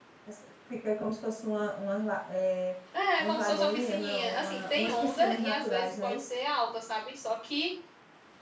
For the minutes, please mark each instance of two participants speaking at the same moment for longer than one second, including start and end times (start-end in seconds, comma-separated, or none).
3.2-6.3